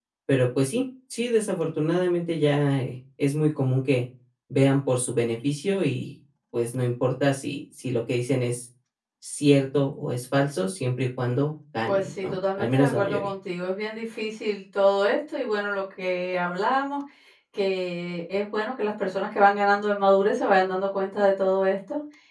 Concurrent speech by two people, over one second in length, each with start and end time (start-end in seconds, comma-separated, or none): 11.8-13.3